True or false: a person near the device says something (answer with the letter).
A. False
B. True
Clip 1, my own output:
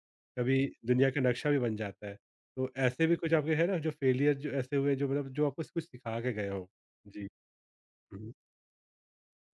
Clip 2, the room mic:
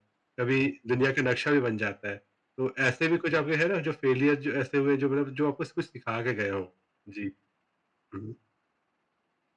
A